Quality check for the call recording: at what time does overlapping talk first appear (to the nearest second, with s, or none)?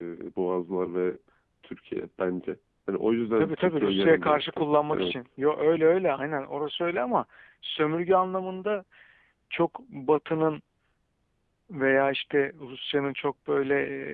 3 s